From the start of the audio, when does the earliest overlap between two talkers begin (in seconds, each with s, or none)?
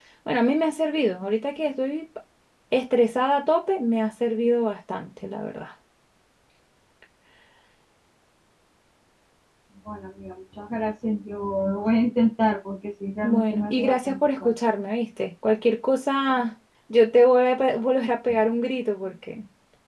13.2 s